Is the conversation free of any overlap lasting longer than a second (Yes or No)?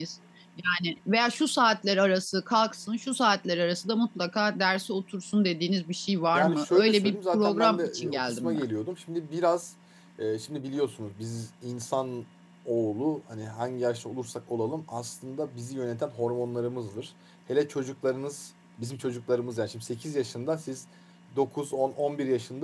No